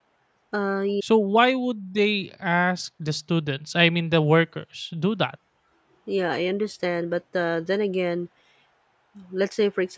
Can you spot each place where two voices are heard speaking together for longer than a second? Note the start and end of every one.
none

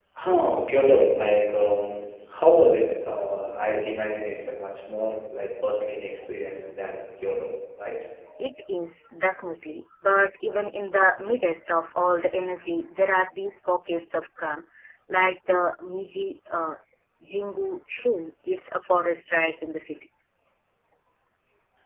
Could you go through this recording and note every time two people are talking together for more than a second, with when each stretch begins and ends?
none

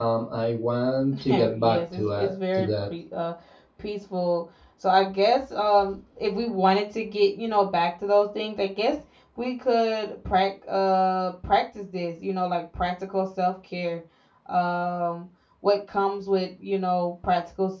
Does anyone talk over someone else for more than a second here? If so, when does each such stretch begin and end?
1.3-2.7

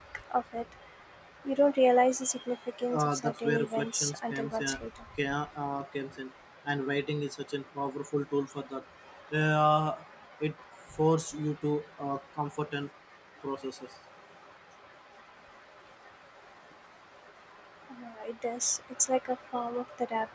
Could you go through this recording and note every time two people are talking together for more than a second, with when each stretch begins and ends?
2.9-4.8

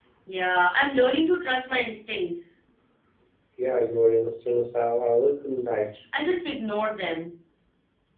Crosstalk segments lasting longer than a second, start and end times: none

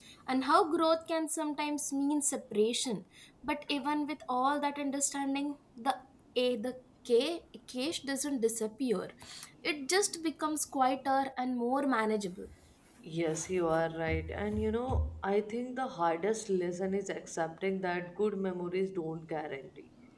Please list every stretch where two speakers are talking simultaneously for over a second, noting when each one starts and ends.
none

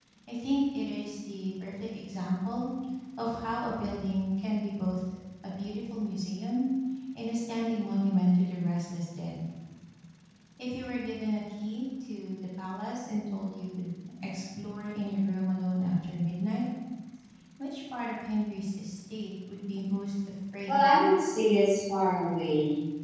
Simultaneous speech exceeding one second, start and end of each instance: none

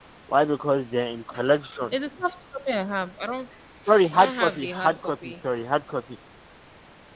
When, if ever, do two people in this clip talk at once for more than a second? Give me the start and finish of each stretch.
4.1-5.3

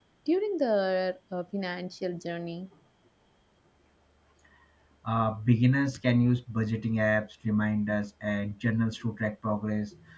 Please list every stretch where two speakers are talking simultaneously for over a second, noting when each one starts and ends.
none

